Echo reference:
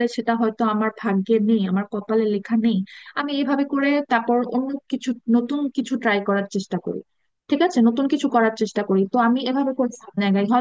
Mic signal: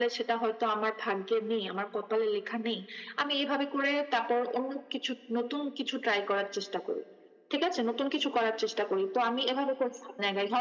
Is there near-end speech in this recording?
No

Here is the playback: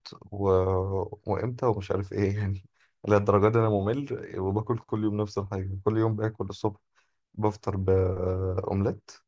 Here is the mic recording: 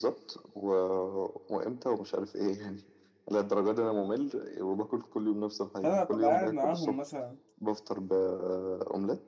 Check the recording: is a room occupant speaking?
Yes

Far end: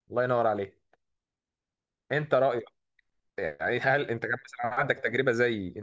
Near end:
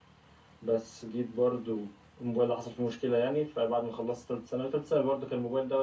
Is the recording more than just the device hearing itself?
Yes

